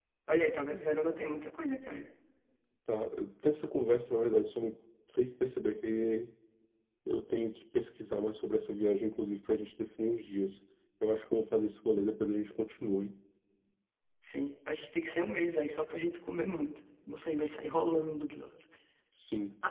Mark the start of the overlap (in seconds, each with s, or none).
none